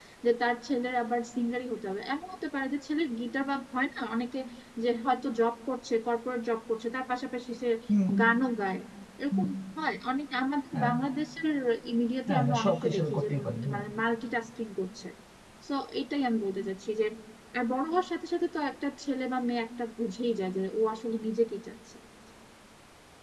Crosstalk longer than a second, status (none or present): present